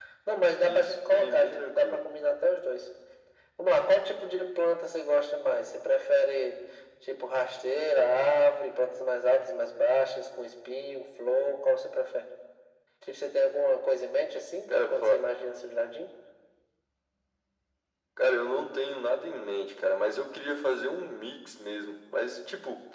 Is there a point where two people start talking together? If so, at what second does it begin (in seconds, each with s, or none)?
0.6 s